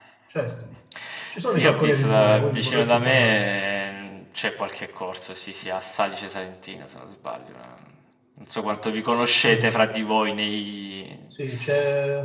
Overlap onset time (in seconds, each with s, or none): 1.6 s